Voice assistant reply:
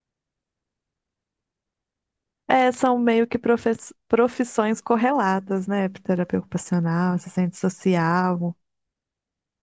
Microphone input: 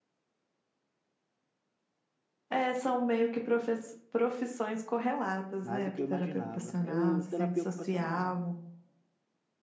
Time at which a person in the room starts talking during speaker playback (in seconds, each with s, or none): 5.6 s